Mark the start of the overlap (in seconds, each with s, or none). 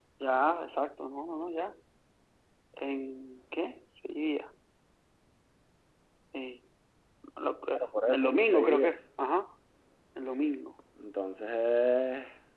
7.7 s